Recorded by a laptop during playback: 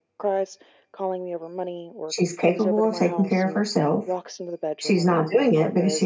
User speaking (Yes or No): Yes